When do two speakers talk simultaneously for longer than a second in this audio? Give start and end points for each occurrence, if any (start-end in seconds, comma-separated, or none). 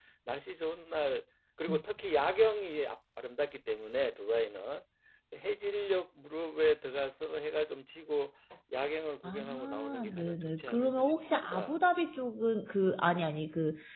9.2-11.7